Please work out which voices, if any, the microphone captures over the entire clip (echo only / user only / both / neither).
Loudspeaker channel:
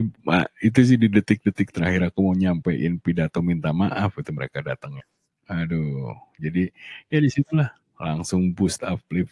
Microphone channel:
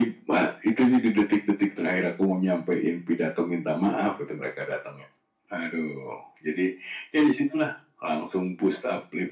echo only